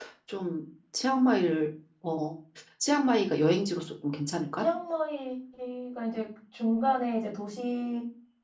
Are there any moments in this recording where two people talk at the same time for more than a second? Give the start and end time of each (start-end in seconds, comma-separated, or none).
none